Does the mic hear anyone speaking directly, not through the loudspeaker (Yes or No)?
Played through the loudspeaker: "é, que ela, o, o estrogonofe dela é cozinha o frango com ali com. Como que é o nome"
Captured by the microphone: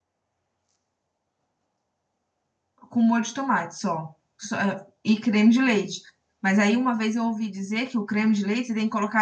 Yes